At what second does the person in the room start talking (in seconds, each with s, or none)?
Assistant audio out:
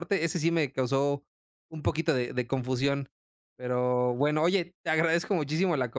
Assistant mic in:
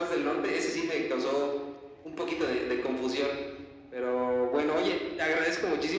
none